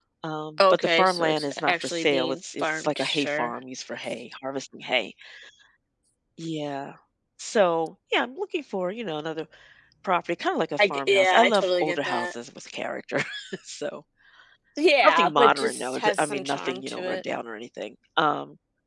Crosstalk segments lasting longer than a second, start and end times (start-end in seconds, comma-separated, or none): 0.7-3.5, 10.8-12.4, 15.0-17.2